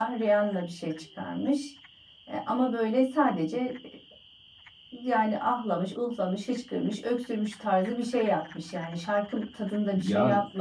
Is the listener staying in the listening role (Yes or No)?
No